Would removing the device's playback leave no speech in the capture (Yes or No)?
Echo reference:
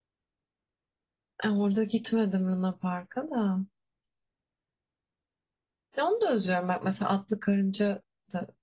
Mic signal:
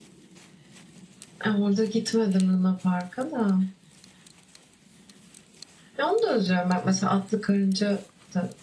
Yes